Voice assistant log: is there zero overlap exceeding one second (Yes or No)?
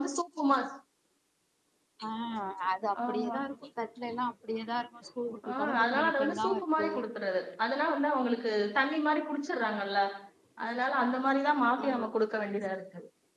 No